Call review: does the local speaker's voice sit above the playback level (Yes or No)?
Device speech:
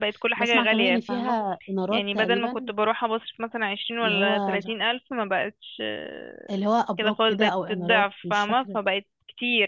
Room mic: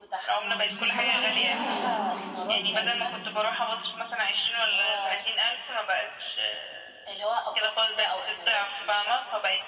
No